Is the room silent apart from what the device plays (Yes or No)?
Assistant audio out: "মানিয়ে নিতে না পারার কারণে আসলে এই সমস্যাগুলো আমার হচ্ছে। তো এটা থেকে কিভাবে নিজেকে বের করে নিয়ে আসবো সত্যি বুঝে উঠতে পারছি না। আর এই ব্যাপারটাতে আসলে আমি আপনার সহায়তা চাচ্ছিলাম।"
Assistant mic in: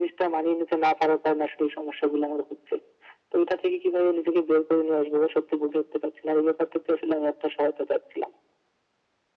Yes